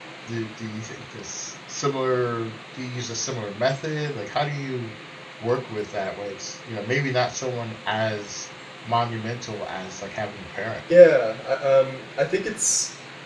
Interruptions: none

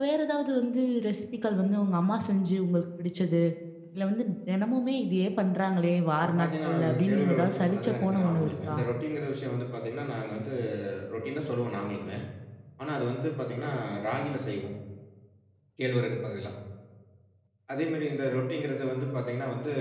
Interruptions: present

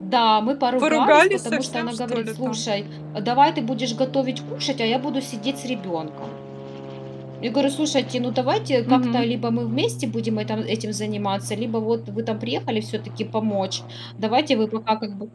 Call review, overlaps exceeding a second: present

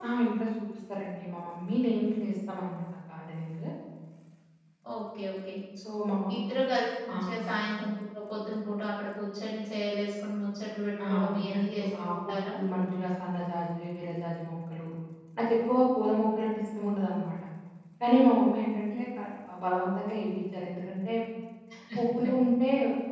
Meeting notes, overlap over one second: present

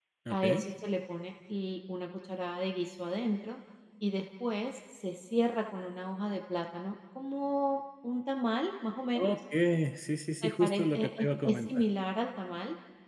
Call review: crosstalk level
present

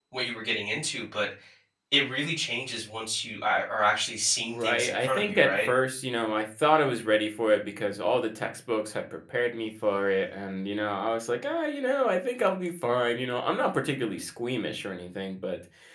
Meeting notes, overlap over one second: present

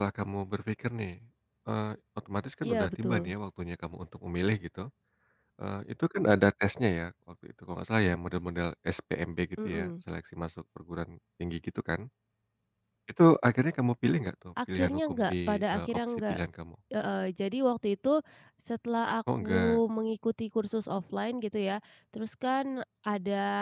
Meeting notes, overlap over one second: present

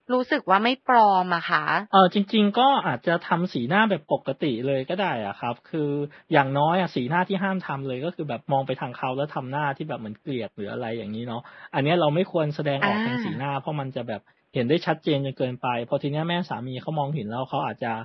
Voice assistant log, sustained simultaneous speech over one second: none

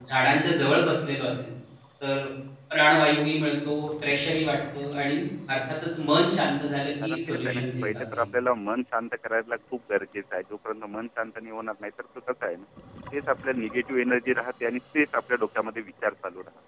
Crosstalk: present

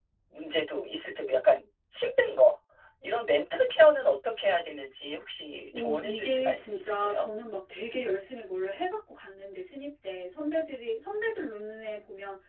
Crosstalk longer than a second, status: present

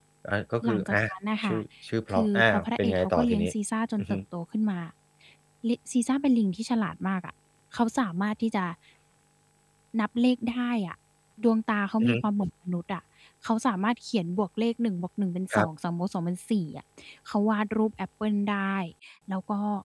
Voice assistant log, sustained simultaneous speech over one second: present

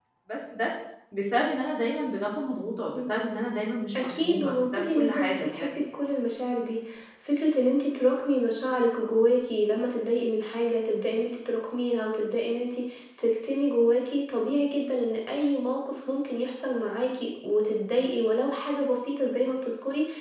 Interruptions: present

